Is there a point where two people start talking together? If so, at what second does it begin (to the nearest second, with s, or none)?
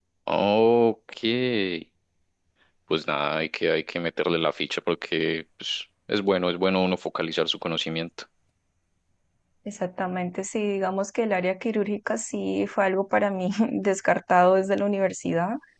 none